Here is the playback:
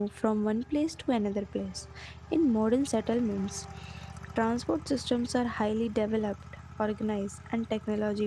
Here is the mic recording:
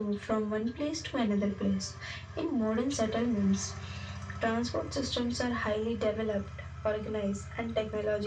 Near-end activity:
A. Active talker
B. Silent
B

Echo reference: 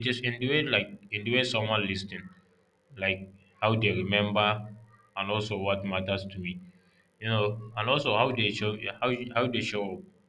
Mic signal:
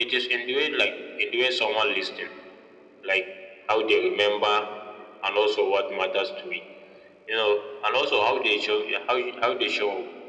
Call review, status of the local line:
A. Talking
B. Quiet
B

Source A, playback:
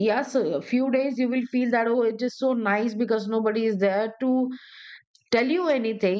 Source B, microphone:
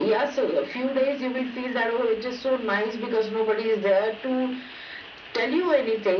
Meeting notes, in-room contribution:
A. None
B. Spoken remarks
A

